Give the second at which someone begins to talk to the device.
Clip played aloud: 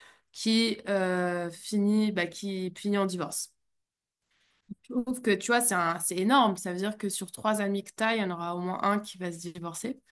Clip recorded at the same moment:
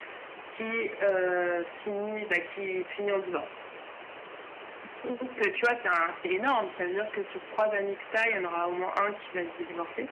none

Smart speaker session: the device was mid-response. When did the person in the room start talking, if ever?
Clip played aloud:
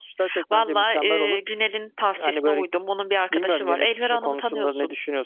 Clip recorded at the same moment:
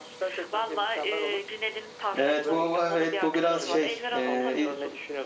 2.1 s

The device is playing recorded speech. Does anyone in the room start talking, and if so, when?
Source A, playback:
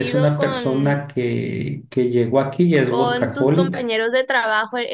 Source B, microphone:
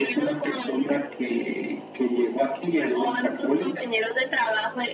none

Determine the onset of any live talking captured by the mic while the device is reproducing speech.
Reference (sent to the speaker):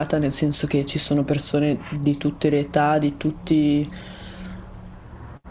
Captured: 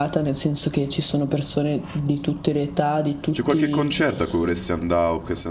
3.3 s

